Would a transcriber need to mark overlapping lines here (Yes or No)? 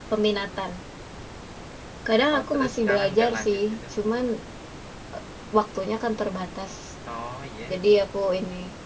Yes